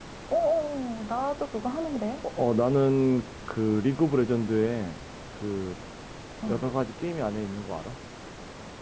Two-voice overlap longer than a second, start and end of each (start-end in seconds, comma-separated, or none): none